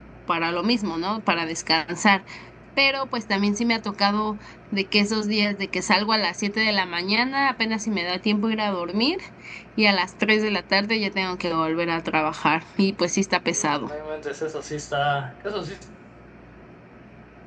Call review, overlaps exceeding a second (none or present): none